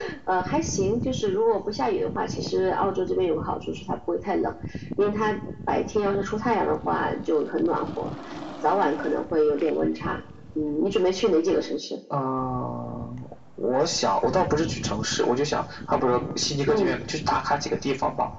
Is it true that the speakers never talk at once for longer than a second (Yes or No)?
Yes